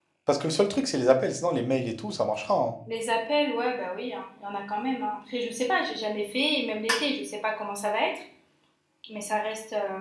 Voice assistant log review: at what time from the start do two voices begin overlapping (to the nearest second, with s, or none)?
none